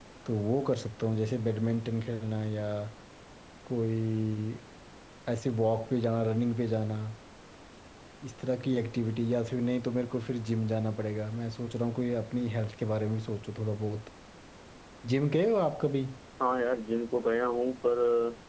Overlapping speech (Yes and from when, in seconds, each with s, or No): No